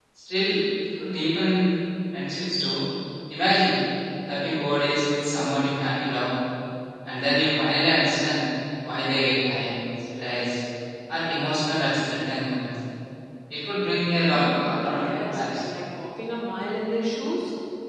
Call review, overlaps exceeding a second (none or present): present